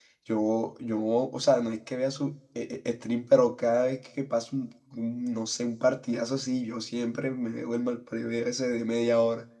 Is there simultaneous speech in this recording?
No

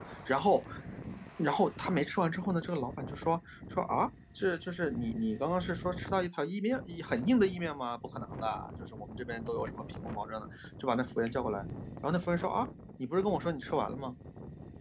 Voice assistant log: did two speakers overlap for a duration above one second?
No

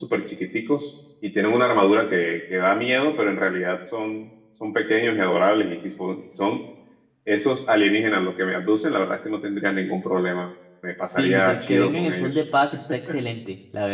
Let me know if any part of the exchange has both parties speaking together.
Yes, from 11.2 s

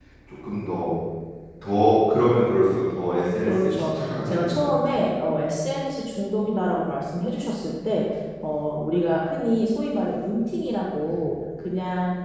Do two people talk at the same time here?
Yes, from 3.4 s

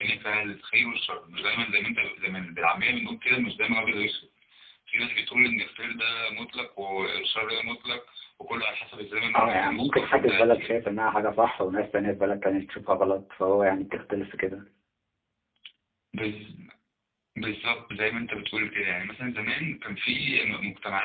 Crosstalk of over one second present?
Yes, from 9.3 s

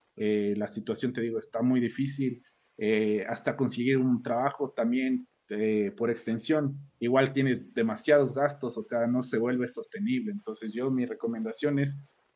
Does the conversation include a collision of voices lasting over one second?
No

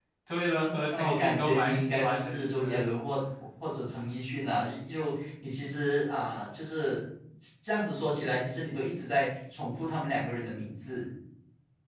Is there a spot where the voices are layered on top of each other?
Yes, from 1.0 s

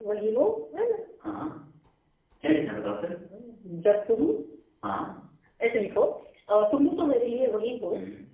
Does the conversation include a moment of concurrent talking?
No

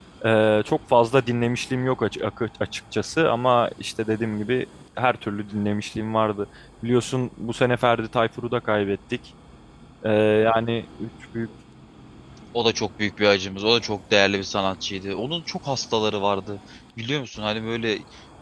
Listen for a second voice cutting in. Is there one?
No

